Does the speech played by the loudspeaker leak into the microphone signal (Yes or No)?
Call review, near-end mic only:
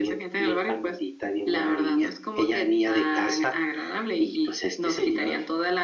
Yes